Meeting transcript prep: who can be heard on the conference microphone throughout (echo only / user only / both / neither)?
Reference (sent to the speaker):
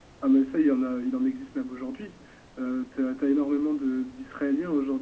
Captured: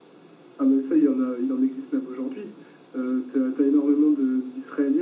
echo only